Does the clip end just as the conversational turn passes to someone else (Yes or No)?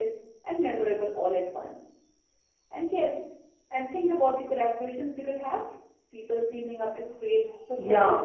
Yes